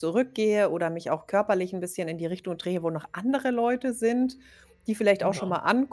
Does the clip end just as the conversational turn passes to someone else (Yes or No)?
No